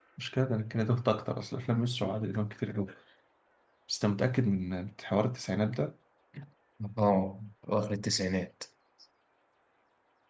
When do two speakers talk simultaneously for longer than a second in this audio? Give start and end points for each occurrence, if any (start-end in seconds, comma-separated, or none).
none